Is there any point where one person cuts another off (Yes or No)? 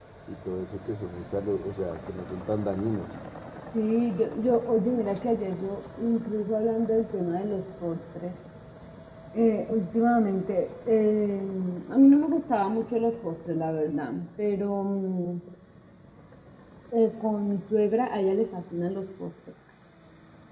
No